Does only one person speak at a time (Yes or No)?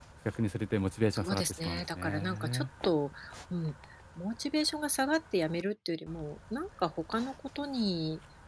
No